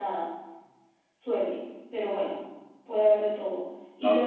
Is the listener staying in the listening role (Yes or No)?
Yes